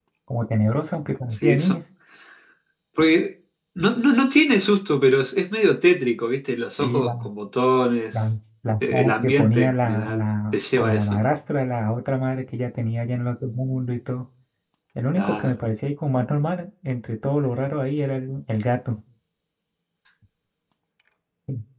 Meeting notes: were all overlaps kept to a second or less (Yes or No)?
No